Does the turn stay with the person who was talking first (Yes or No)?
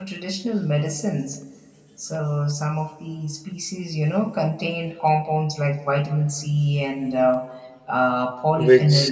No